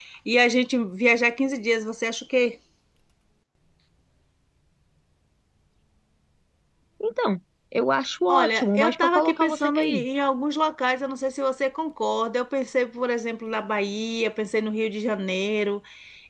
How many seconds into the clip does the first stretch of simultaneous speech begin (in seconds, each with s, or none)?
8.3 s